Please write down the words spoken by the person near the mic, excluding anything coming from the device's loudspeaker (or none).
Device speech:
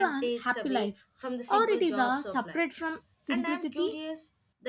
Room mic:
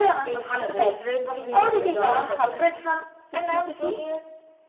a big difference in your overall happiness?